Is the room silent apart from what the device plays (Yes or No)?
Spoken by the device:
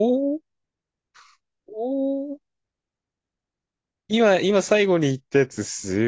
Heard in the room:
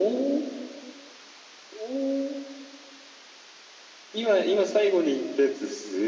Yes